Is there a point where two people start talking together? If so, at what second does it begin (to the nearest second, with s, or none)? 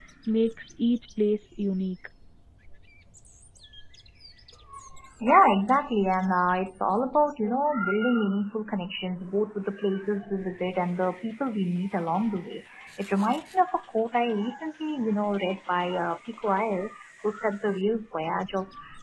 none